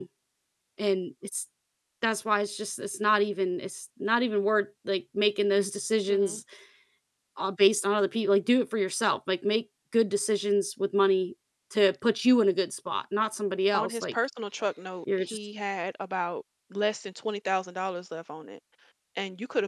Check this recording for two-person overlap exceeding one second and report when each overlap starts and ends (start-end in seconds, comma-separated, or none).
none